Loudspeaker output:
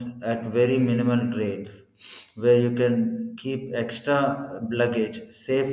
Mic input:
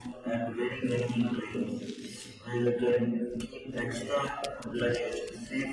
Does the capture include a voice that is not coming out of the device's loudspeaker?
No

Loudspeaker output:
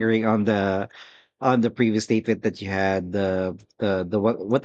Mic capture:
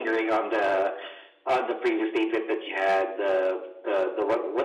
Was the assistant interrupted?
No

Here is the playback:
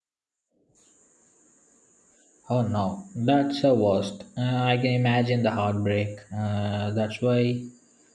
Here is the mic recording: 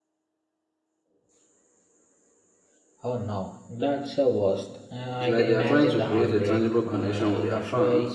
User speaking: Yes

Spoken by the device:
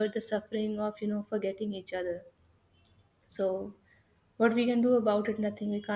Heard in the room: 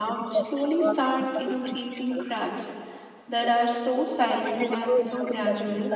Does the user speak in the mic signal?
Yes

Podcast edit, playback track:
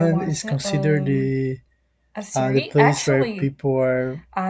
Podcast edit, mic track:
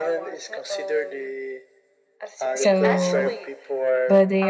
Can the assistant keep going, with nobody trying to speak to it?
No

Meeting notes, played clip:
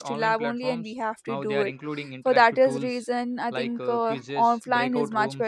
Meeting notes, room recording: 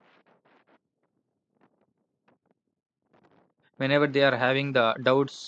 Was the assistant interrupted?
Yes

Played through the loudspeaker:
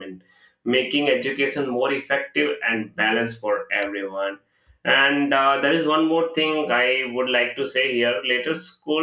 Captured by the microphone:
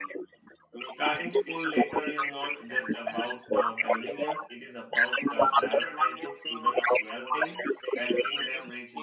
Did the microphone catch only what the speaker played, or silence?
No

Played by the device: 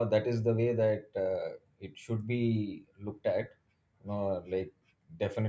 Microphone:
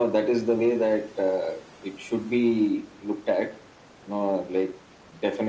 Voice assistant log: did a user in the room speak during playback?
No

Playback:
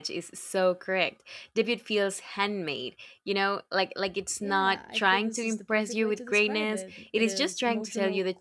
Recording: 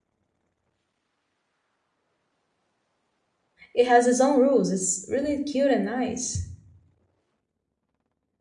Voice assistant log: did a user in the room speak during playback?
Yes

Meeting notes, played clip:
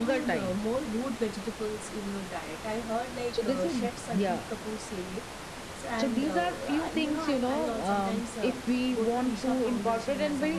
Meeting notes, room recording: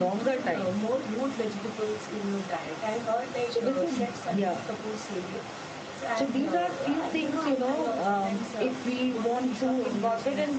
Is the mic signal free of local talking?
Yes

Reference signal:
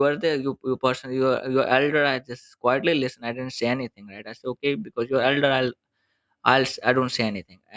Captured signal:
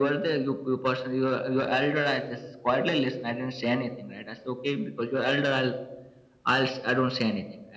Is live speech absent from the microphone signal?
Yes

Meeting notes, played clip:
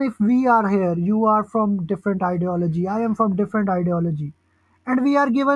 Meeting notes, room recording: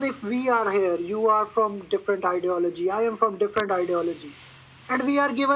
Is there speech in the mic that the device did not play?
No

